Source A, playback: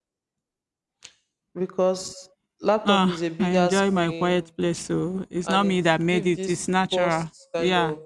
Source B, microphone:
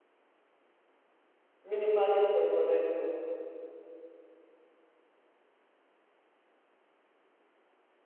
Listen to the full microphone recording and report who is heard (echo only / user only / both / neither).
user only